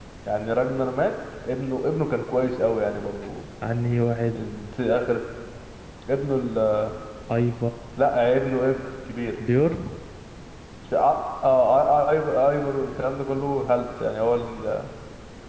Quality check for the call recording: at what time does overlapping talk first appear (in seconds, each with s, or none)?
none